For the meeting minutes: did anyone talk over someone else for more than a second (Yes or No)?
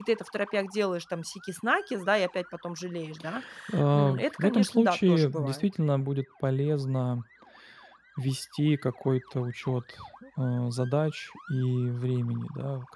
Yes